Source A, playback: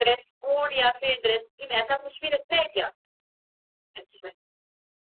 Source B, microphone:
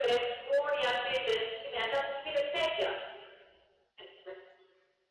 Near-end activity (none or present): none